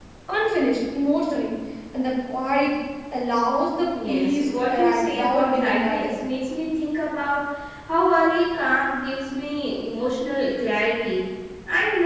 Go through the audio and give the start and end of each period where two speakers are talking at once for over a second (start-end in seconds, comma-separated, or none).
4.1-6.2